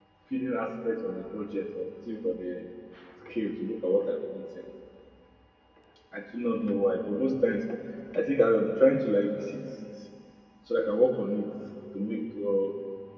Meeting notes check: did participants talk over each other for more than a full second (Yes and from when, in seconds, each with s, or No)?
No